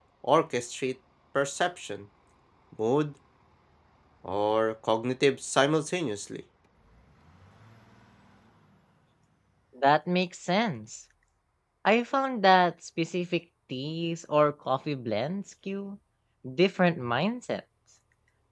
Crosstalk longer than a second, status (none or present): none